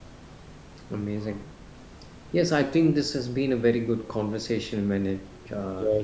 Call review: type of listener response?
taking over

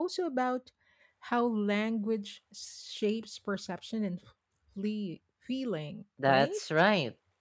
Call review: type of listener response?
taking over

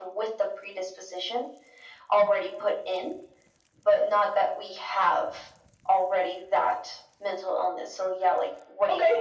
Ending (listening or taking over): taking over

